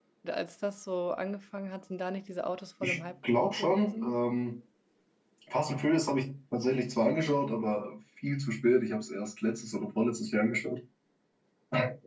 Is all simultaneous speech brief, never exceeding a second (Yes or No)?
No